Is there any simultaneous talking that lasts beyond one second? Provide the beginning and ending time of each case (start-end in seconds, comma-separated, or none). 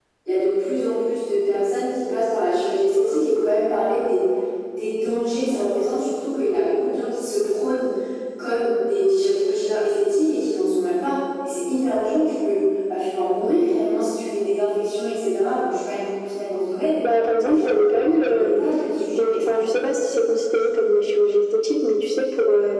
17.4-18.6